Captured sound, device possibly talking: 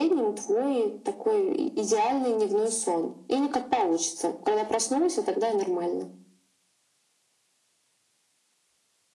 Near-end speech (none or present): none